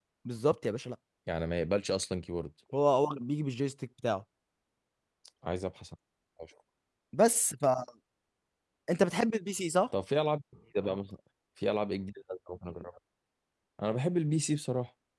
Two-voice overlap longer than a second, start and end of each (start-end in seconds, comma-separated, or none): none